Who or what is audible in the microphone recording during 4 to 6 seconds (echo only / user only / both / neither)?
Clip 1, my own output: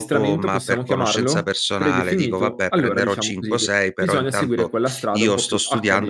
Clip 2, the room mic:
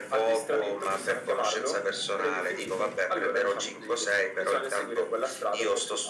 echo only